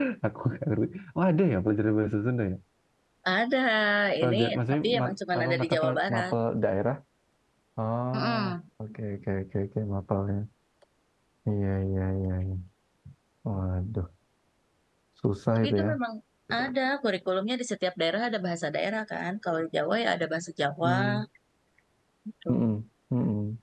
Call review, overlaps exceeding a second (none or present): present